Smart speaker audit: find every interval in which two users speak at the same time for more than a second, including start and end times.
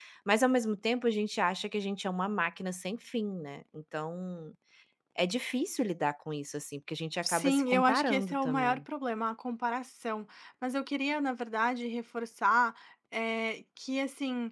7.2-8.8

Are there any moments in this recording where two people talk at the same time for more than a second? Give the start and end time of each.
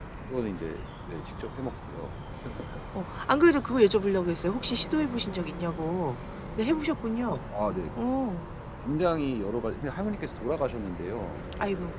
none

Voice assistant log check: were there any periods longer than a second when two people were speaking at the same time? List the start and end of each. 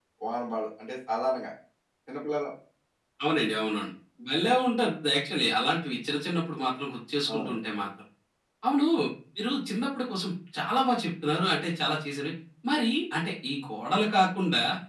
none

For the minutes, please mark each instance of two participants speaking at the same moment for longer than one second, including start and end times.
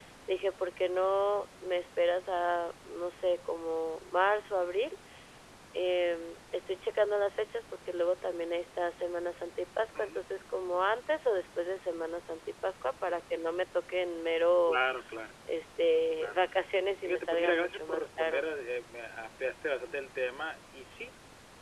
17.0-18.5

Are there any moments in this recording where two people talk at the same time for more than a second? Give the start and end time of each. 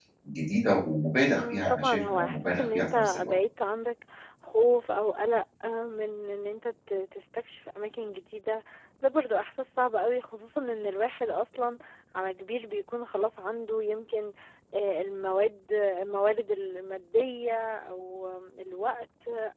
1.3-3.3

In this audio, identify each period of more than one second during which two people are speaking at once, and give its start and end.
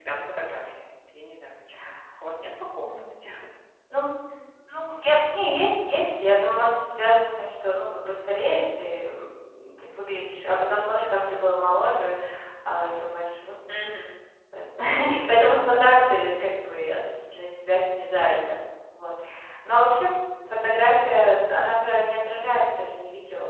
none

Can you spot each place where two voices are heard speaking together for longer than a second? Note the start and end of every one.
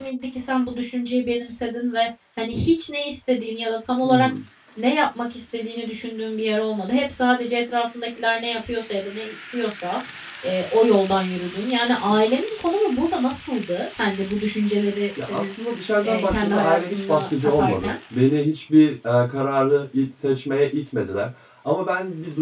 16.0-17.9

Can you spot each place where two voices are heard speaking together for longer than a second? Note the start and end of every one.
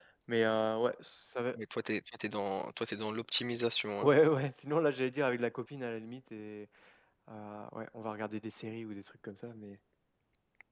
none

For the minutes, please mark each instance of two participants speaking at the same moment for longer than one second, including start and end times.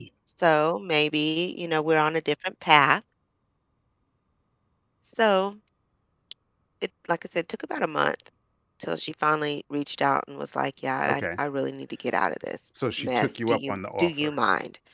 13.0-14.4

